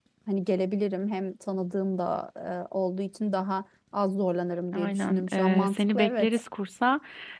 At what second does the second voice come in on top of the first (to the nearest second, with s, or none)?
5 s